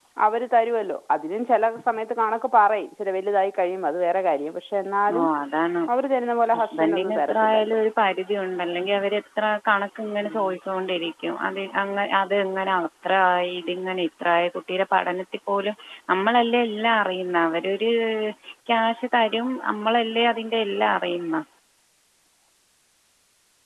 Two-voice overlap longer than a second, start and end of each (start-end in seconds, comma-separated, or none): 6.6-7.8